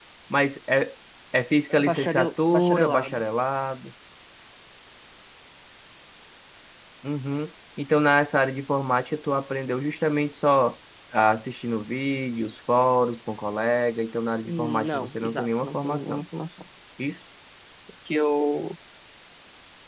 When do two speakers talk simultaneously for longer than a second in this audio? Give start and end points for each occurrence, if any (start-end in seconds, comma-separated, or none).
1.9-3.2, 14.4-16.2